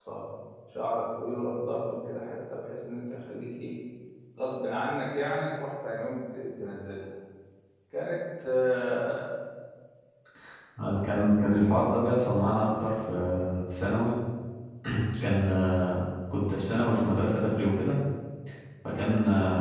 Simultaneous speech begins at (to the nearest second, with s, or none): none